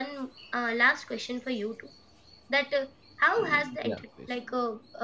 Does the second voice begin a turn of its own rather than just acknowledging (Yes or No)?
No